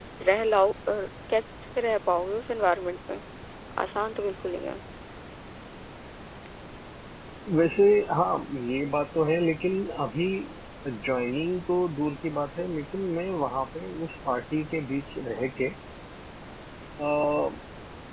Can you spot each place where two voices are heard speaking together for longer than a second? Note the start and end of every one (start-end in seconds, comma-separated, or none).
none